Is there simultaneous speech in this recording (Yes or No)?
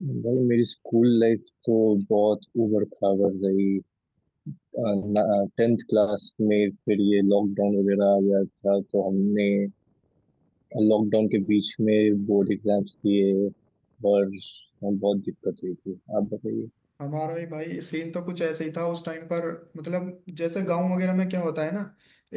No